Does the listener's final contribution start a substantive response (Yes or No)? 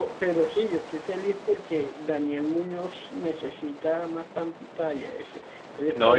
Yes